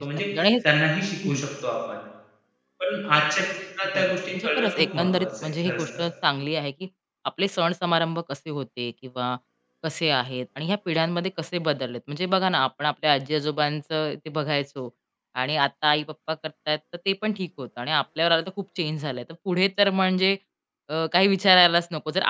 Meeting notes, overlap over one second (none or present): present